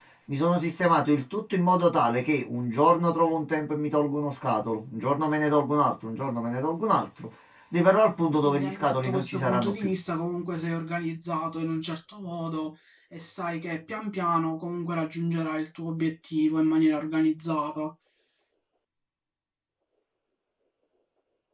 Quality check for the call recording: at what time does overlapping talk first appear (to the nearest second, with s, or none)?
8 s